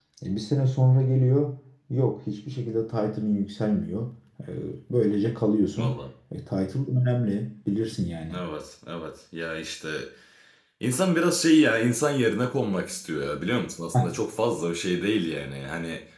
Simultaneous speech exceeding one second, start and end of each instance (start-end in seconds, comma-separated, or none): none